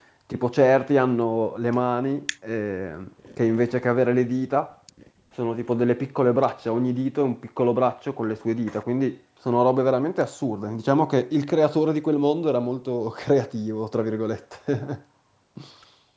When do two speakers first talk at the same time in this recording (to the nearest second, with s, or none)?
none